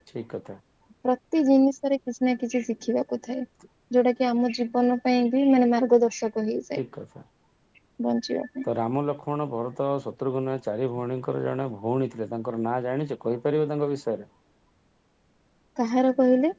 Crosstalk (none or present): none